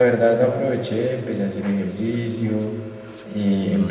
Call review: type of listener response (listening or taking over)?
listening